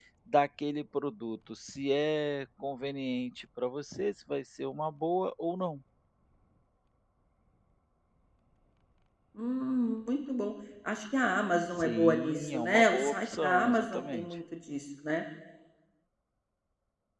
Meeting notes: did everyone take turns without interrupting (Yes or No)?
No